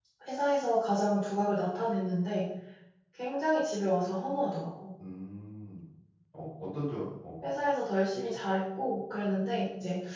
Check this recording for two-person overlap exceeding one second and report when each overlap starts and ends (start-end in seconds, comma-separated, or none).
none